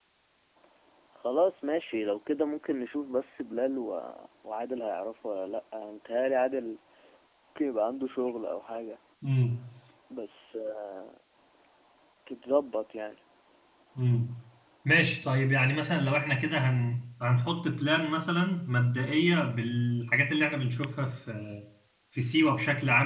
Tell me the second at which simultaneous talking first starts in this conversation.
none

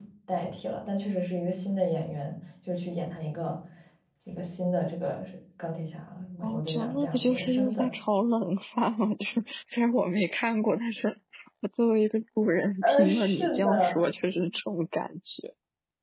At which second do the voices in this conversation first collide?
6.4 s

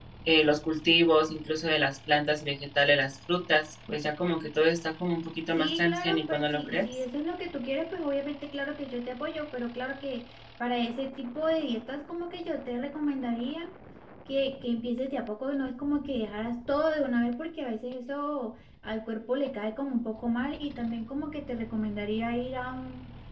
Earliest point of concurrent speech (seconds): 5.6 s

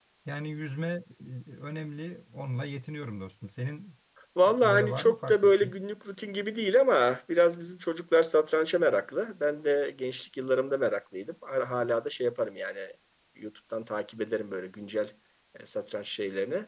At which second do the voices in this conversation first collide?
4.5 s

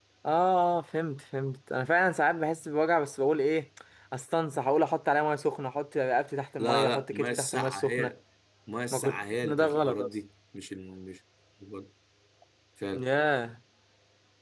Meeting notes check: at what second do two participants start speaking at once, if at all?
6.6 s

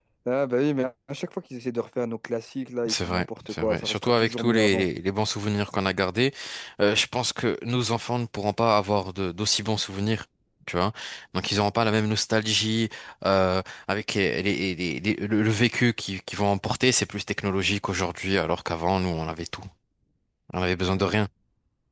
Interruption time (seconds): 2.9 s

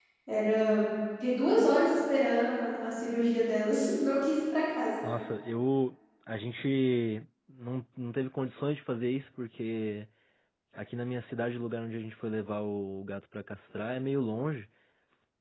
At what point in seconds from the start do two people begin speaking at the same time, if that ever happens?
none

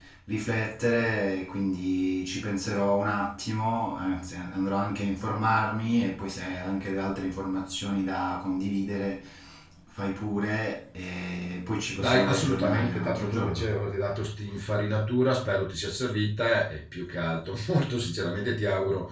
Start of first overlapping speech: 12.0 s

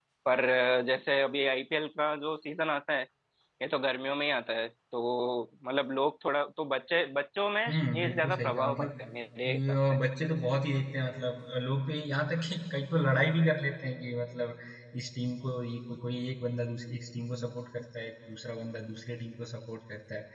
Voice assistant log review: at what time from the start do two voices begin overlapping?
7.7 s

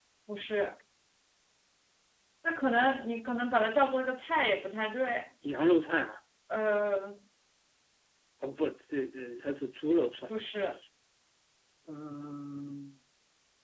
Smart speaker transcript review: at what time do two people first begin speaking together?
none

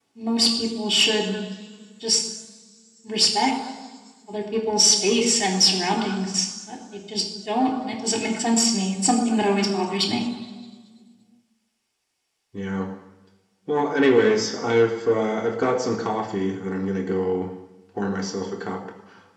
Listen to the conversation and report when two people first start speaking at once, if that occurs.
none

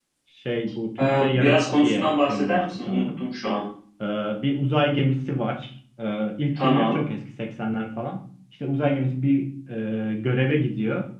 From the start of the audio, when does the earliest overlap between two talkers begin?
1.0 s

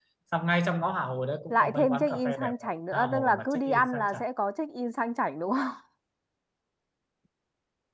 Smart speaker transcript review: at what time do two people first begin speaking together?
1.5 s

